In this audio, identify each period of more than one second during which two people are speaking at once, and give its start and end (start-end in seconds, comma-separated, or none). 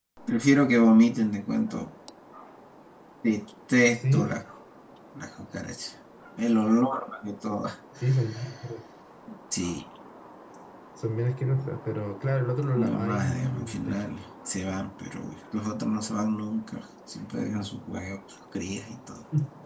12.8-14.1